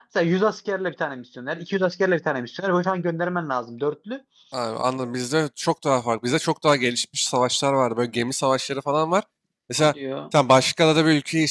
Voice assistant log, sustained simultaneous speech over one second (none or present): none